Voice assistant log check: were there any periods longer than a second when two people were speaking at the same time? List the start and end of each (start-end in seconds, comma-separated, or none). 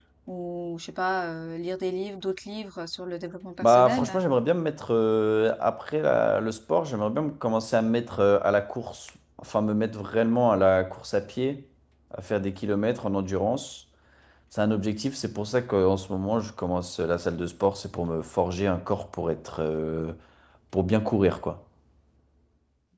none